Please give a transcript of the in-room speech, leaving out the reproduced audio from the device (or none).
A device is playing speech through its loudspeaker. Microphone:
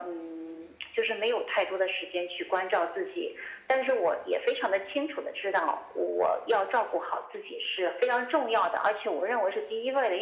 none